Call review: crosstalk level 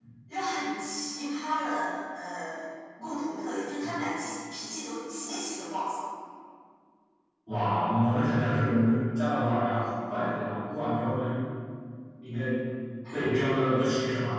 none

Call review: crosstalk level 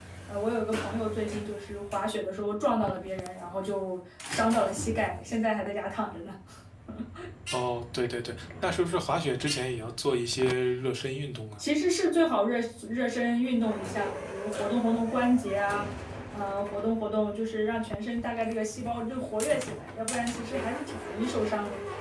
none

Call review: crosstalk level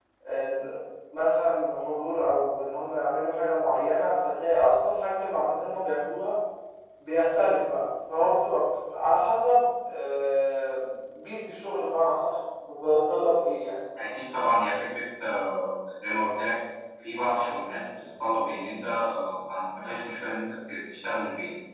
none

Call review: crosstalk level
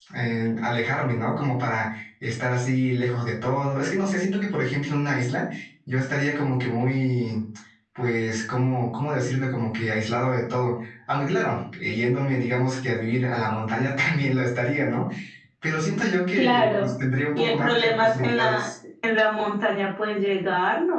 present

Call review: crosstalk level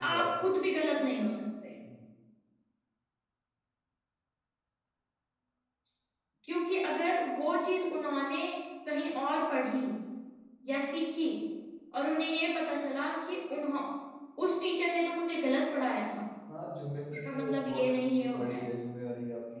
present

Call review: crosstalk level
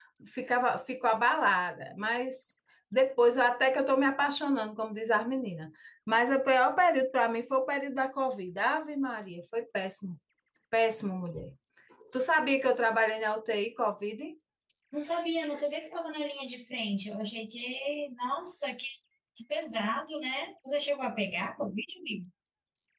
none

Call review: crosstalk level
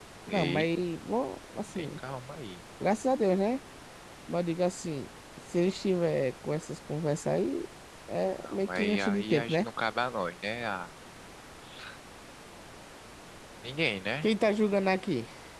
present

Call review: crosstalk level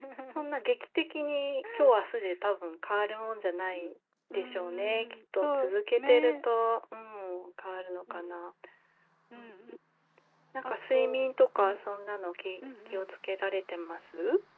present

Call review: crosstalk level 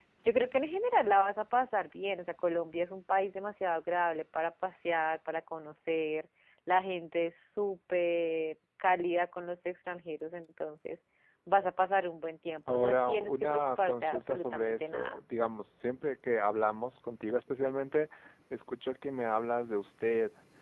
present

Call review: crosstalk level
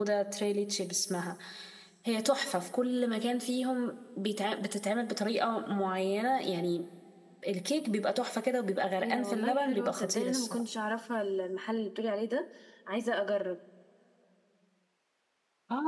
present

